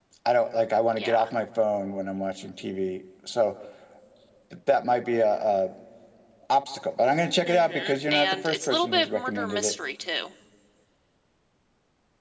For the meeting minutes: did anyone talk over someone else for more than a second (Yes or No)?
Yes